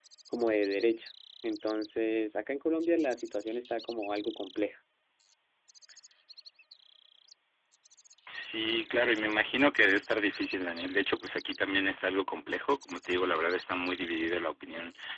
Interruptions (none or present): none